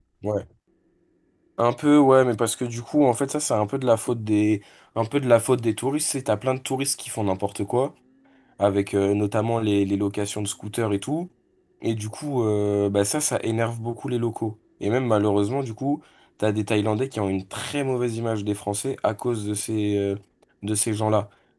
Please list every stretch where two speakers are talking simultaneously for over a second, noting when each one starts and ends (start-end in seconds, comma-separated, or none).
none